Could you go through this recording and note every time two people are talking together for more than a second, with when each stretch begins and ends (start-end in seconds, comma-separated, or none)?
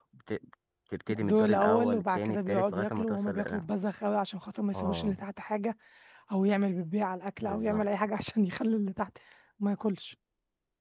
1.2-3.6